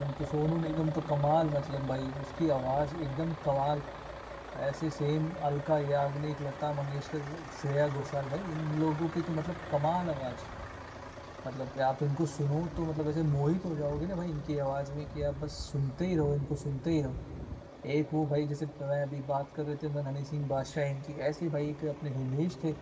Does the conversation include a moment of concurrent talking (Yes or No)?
No